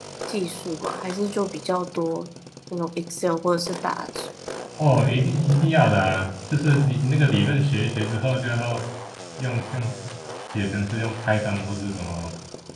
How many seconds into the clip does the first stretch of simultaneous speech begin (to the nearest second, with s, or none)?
none